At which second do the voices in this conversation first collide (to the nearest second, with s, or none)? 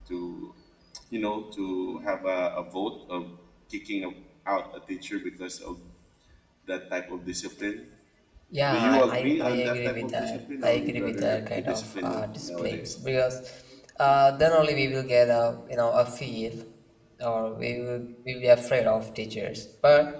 9 s